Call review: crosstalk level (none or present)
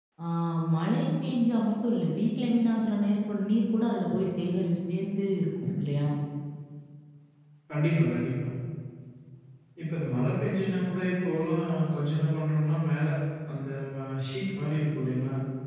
none